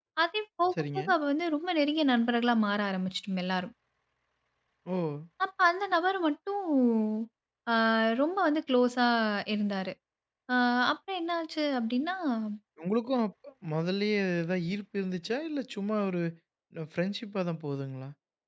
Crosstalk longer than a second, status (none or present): none